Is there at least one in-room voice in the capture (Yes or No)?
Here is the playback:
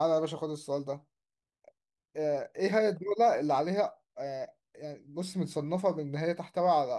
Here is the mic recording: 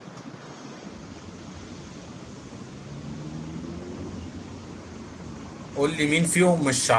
Yes